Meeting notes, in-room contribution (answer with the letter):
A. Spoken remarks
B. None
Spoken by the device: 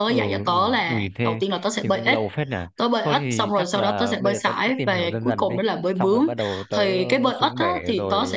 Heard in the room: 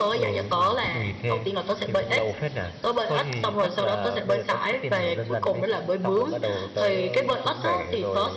B